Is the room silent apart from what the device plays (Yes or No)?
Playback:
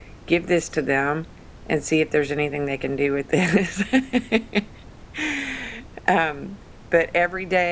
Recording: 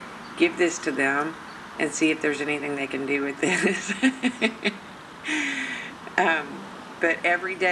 Yes